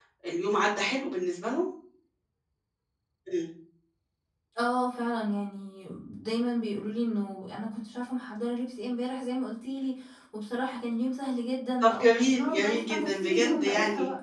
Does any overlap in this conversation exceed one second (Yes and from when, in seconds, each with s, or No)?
Yes, from 11.8 s